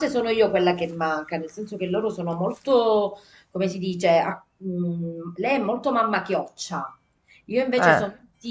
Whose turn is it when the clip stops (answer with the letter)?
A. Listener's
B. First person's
B